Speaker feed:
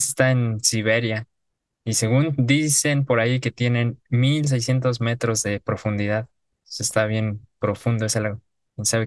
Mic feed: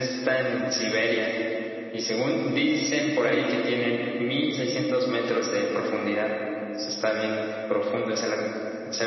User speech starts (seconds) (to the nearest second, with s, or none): none